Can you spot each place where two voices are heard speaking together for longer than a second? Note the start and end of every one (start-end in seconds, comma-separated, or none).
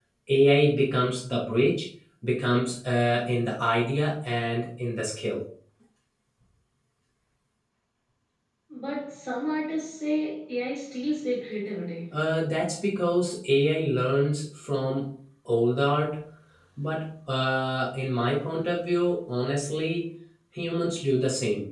none